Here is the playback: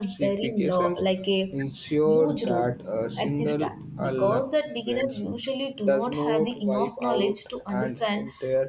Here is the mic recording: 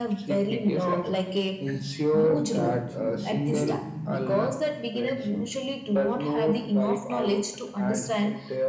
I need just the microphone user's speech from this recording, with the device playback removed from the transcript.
often achieve steady

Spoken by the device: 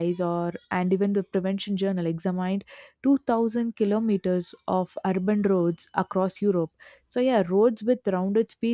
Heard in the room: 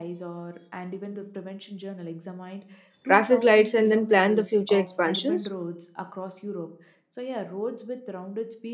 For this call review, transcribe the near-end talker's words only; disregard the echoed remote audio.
traffic lights and then plan the future expansions.

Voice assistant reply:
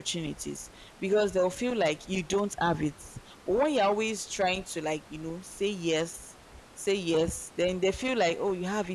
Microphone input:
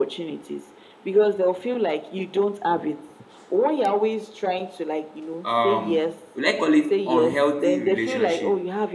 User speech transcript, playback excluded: Um, will I call it unhealthy relationship?

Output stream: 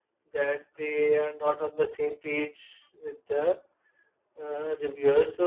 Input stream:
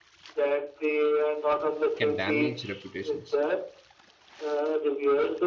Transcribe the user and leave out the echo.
can damage reputations.

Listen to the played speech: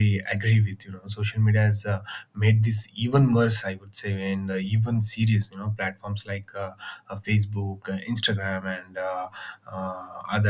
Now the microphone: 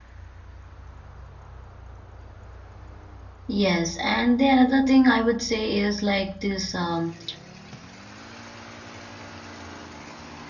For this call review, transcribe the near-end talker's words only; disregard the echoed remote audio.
Yes, and the another thing I would say is like this um,

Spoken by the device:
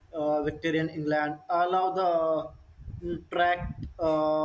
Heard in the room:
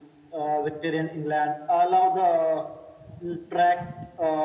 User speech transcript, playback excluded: none

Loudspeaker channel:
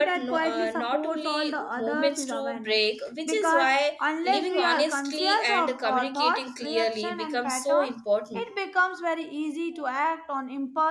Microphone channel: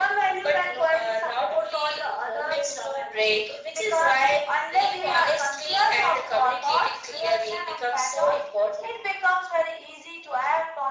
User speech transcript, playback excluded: none

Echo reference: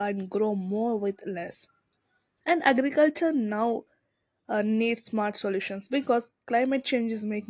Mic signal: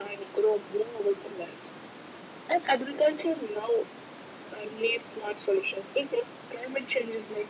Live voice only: none

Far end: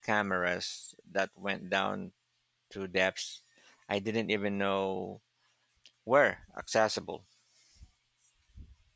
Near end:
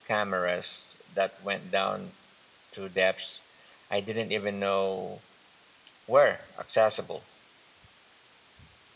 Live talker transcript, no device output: none

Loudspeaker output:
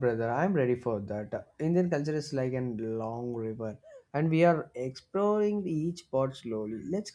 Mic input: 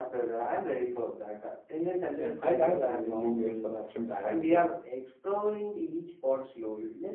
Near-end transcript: Yeah, I love that Indian meals are often balanced. eh?

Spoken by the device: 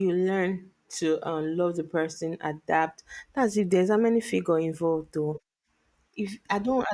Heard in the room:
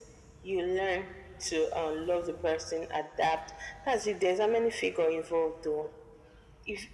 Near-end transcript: none

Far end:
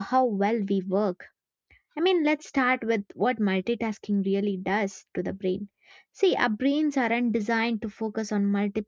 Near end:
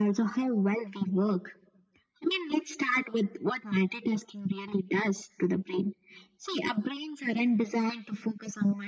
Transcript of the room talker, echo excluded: none

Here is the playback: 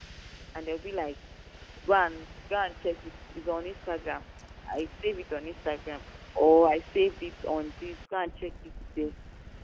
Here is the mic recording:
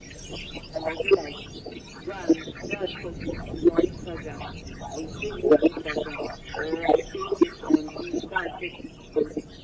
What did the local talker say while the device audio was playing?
none

